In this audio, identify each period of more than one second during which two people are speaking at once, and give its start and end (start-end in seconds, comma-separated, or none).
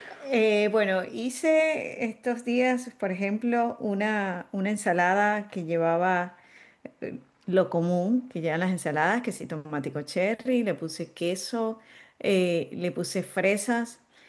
none